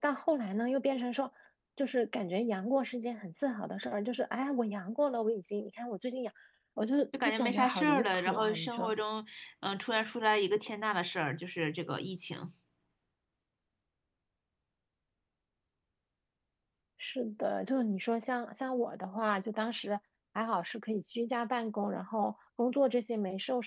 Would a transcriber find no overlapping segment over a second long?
No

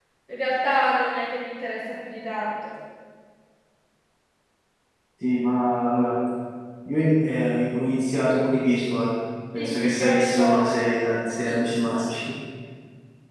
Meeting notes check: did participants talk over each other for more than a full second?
Yes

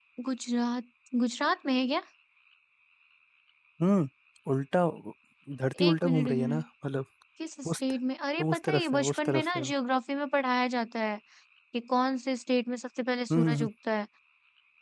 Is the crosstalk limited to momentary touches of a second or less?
No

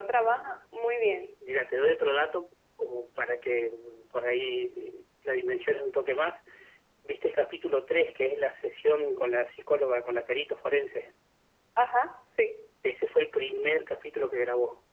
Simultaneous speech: No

